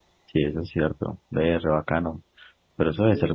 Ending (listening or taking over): listening